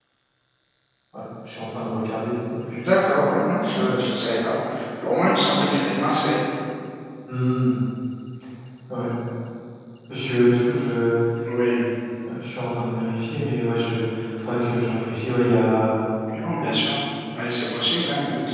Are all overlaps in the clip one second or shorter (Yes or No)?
Yes